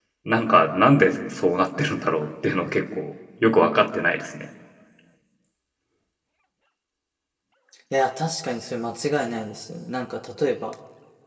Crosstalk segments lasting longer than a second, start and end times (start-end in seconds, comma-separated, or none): none